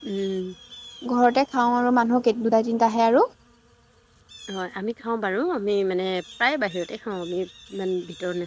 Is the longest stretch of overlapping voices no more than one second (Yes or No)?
Yes